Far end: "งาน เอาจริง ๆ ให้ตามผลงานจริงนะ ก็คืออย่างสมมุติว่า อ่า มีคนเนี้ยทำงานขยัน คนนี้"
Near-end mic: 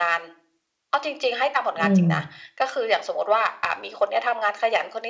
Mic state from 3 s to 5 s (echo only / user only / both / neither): echo only